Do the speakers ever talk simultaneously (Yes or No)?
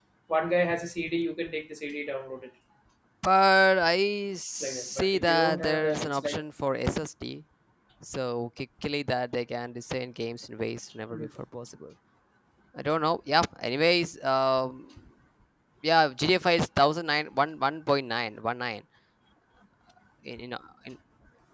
Yes